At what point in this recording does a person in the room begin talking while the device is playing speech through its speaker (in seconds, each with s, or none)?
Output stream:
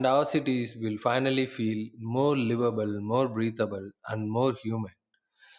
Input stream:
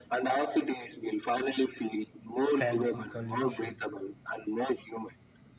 2.5 s